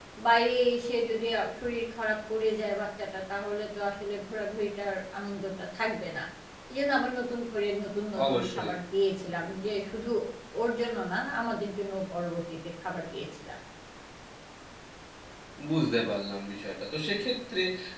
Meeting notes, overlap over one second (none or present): none